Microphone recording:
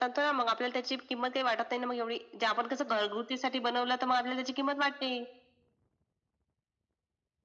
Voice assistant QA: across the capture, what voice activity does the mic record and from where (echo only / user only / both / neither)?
echo only